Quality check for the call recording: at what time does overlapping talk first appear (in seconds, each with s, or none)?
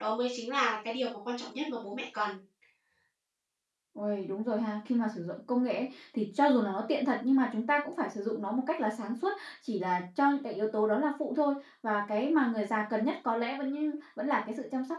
none